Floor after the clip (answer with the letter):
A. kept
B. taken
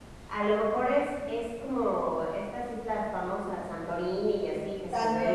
B